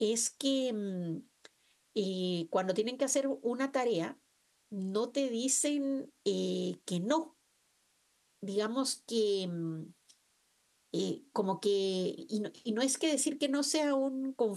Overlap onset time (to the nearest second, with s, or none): none